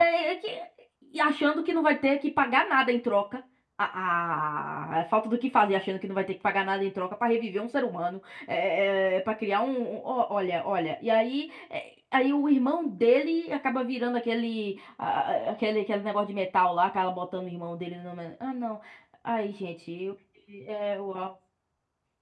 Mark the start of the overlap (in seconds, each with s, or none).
none